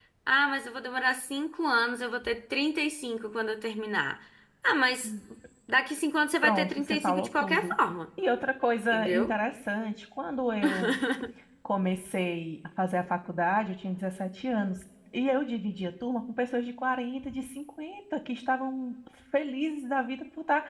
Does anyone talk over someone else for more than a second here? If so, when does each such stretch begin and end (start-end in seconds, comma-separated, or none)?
6.4-7.8